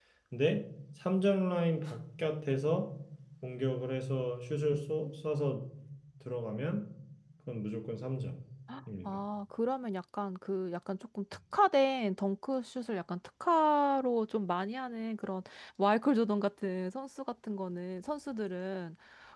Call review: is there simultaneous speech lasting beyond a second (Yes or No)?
No